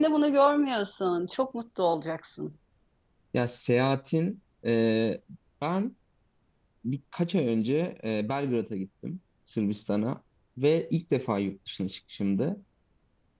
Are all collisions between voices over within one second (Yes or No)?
Yes